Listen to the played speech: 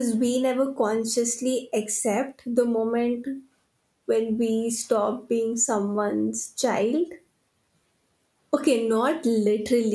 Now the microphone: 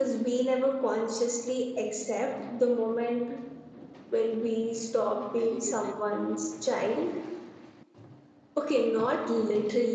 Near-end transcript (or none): delegated